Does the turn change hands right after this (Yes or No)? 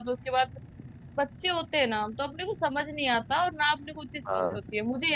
No